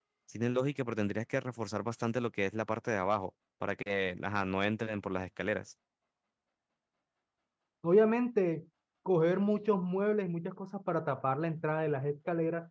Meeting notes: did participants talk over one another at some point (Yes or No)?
No